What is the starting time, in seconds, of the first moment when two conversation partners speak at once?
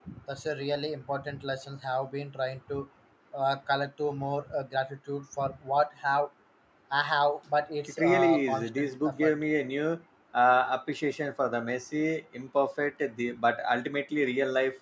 7.9 s

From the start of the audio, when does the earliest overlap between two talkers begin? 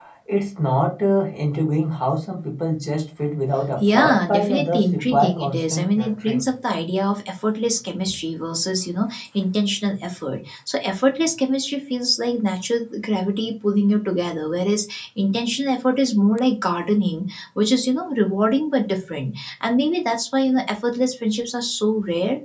3.8 s

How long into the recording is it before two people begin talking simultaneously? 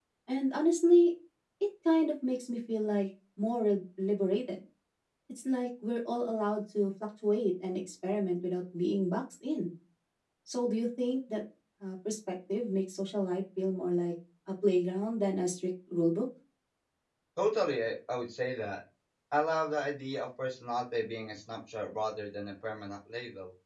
none

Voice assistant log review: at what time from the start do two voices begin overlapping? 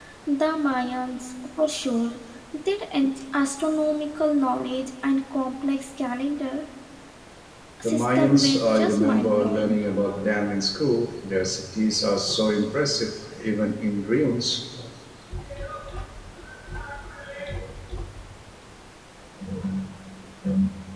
7.8 s

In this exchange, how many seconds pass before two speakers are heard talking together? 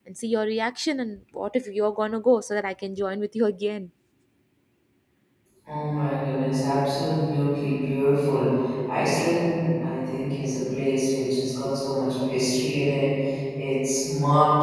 none

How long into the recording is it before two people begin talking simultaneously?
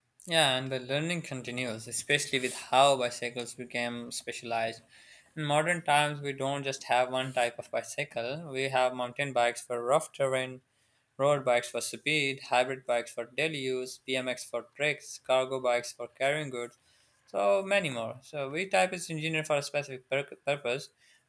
none

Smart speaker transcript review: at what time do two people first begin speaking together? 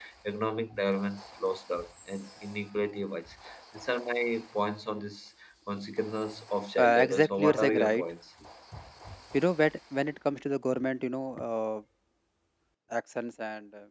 6.8 s

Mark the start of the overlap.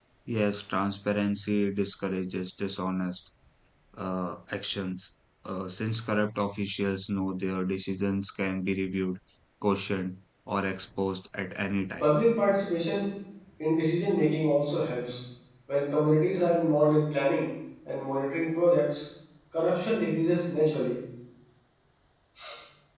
none

